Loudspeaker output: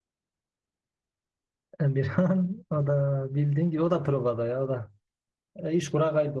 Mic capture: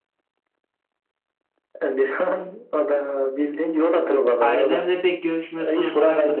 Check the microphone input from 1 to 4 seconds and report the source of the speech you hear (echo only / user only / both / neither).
echo only